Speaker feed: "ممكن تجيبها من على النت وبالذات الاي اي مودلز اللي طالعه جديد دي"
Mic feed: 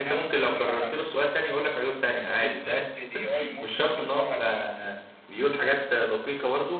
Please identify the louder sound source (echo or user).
user